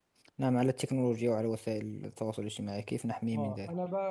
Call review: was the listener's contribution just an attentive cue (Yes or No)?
No